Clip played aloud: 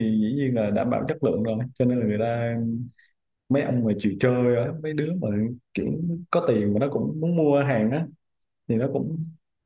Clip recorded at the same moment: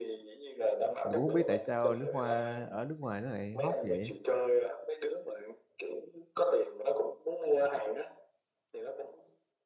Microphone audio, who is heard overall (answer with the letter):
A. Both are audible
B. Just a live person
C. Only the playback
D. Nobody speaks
A